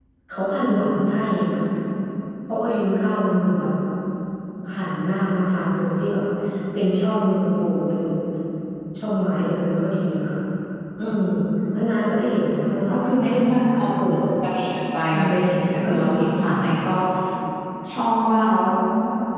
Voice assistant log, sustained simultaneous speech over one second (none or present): present